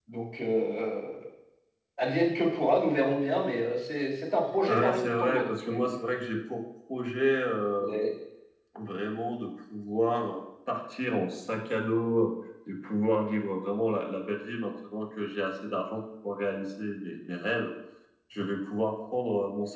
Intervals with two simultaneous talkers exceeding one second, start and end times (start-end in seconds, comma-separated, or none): 4.7-6.0